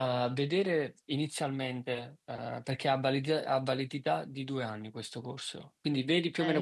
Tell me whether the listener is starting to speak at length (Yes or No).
Yes